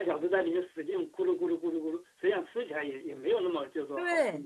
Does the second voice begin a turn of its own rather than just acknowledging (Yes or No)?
Yes